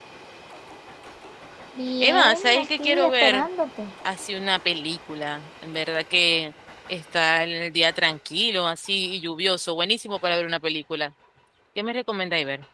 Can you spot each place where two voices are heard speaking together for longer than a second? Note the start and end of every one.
2.0-3.5

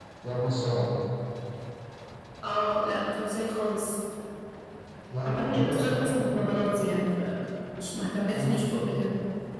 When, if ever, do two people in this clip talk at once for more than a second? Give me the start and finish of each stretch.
5.2-6.5

